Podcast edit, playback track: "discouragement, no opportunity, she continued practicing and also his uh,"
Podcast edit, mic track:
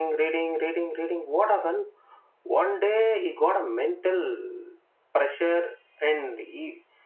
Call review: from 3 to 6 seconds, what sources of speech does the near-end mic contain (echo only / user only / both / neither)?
user only